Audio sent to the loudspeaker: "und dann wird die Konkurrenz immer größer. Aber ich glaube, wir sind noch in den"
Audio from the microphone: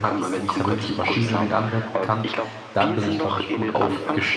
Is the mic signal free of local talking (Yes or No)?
No